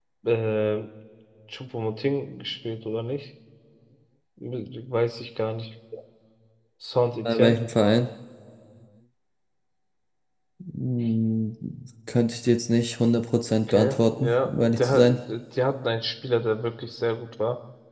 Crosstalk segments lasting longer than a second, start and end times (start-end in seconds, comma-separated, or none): 13.7-15.2